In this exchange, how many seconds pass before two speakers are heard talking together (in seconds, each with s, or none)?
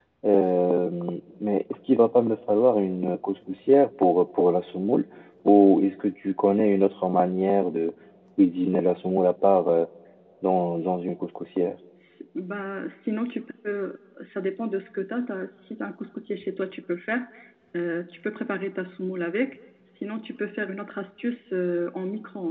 none